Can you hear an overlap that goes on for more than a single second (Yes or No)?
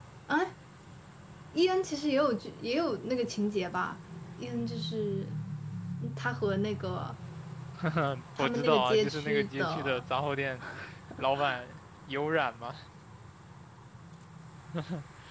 Yes